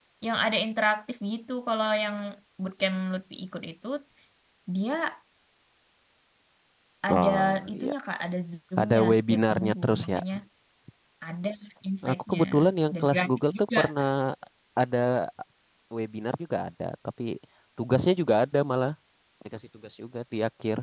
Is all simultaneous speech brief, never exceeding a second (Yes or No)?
No